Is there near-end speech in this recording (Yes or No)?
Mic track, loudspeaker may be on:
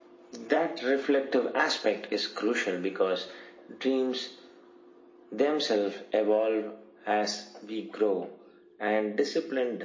No